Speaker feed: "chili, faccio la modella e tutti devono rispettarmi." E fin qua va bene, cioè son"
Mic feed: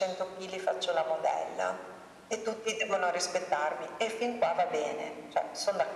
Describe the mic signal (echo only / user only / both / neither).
echo only